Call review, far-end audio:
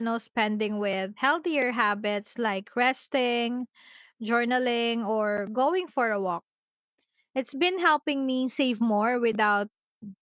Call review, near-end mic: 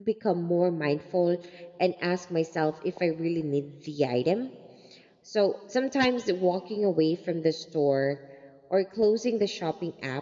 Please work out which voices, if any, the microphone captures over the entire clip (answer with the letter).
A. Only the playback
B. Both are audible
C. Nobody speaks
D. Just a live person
D